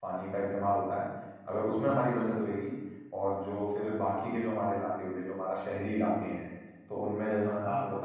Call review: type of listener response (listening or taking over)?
listening